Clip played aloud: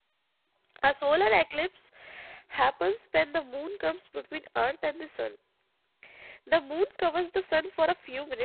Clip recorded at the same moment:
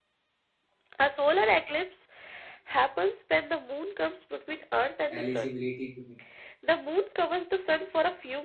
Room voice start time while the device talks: 5.1 s

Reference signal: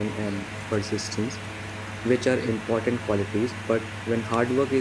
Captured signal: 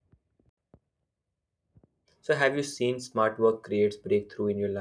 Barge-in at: 2.2 s

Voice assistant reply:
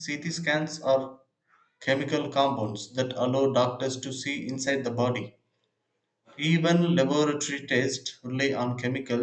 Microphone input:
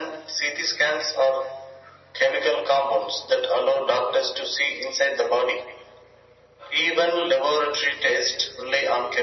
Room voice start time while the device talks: none

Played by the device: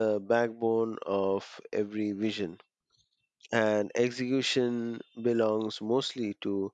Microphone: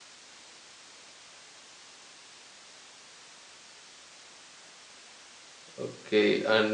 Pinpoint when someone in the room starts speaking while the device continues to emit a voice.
5.8 s

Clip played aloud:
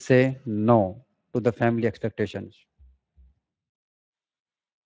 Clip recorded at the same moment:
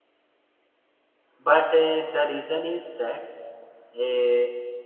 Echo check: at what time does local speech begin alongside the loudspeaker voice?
1.4 s

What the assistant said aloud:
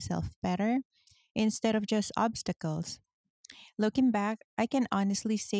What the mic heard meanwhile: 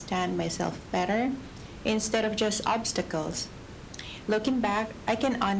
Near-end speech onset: none

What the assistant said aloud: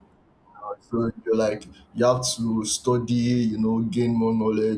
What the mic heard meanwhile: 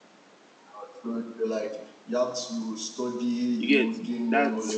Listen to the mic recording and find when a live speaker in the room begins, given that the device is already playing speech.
3.6 s

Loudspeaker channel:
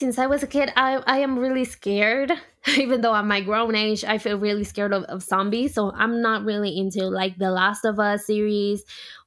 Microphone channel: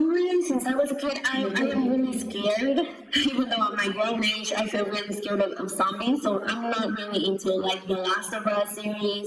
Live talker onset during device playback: 1.4 s

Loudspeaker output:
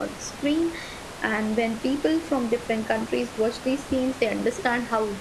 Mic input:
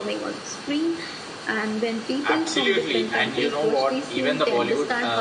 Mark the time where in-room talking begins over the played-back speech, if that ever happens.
2.2 s

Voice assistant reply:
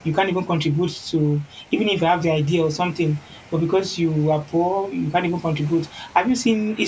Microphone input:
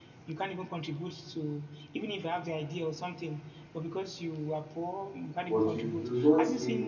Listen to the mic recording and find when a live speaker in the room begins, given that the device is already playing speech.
5.5 s

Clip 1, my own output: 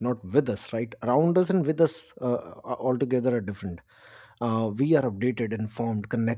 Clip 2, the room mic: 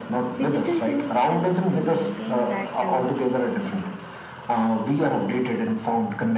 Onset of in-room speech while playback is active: 0.4 s

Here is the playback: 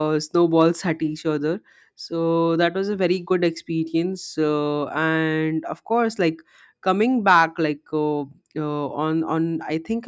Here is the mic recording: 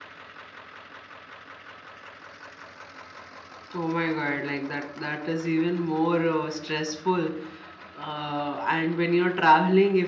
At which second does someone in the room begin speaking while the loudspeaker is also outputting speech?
3.7 s

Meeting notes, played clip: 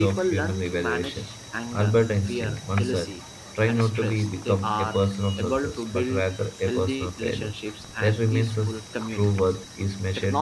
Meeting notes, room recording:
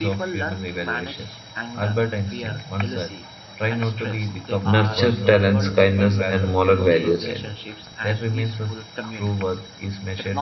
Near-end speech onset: 4.6 s

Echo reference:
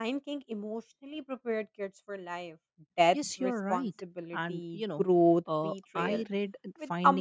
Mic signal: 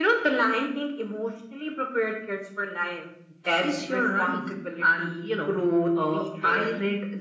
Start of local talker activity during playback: none

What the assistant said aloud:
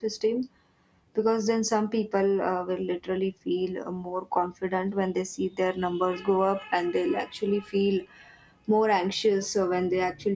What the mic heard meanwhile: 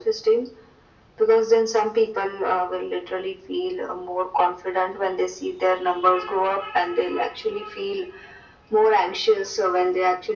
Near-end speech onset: none

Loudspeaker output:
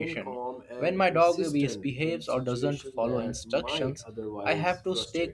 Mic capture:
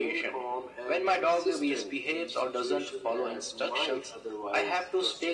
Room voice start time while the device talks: none

